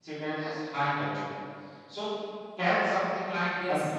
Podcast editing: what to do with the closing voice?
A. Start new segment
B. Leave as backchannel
B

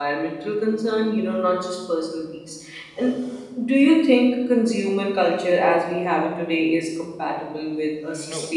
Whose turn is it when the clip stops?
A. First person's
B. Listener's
B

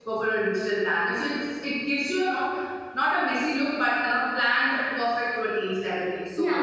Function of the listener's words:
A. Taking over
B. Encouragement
A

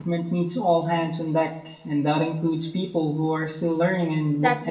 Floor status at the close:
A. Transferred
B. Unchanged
A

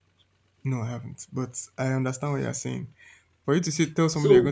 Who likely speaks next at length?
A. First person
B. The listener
A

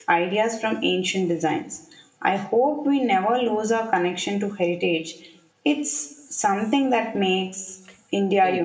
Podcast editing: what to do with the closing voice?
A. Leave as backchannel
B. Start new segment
B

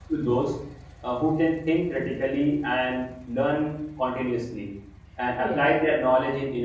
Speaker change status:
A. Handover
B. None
B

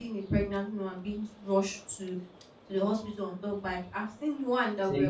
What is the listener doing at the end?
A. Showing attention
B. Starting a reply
A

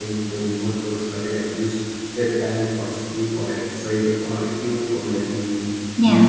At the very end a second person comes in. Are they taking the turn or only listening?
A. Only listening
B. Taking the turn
A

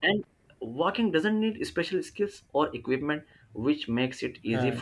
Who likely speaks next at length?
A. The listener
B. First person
B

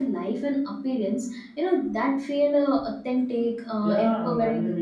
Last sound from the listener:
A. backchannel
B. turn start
B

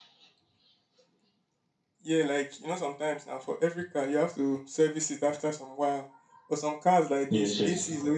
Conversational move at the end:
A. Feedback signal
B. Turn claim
A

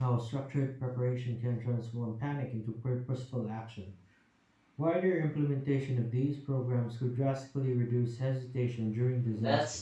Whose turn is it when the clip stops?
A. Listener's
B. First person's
A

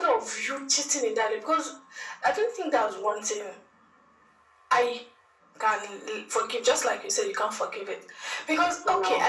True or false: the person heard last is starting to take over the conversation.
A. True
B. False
B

